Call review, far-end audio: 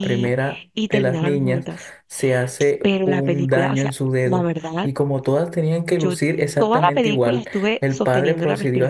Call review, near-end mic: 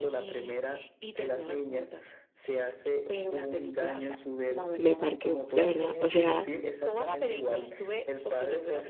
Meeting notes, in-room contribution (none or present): present